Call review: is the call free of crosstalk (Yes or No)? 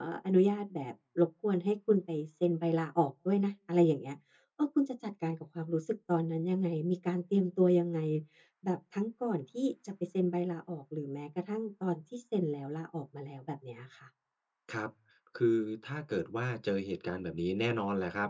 Yes